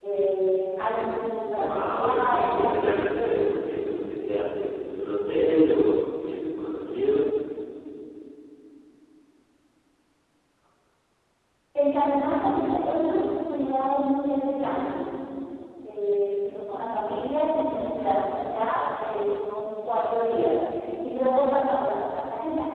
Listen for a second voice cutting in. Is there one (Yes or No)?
Yes